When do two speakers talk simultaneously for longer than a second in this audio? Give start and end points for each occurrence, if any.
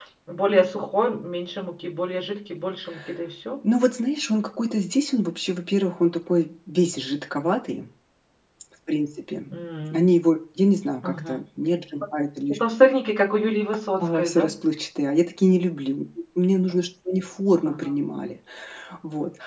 none

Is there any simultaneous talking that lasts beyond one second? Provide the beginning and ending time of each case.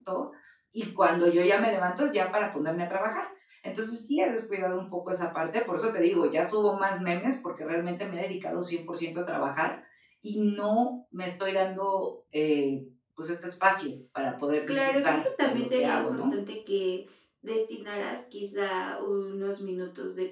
14.7-16.3

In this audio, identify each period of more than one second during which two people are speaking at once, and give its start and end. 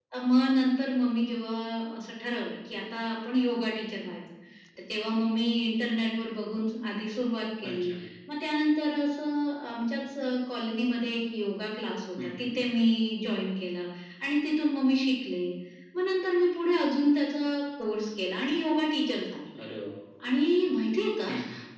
none

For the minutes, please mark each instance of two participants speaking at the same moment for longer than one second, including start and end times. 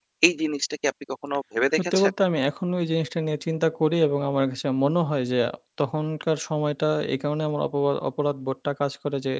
none

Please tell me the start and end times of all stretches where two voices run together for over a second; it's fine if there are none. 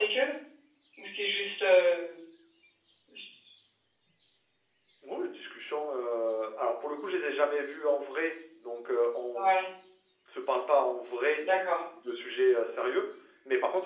none

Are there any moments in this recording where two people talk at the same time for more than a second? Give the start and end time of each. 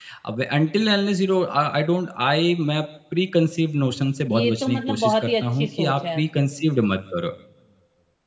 4.3-6.2

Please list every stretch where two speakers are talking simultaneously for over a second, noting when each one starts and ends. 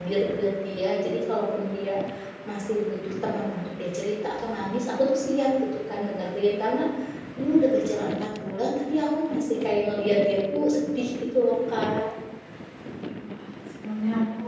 none

